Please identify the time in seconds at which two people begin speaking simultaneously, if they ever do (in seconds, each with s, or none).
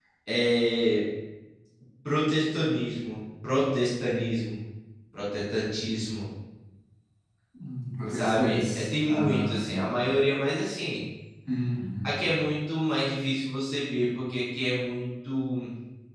8.1 s